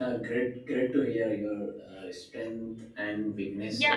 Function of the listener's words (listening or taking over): taking over